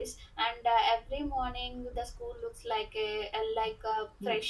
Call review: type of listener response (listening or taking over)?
taking over